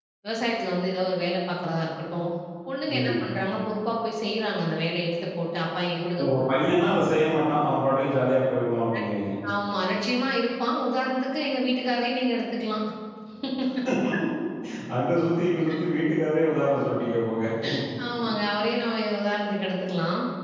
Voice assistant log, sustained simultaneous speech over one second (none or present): none